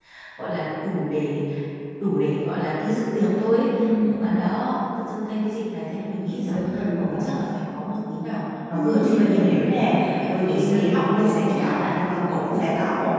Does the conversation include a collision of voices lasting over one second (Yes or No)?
Yes